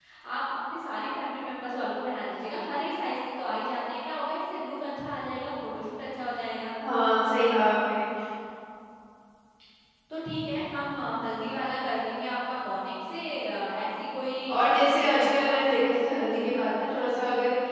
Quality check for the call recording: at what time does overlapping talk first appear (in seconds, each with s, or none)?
14.6 s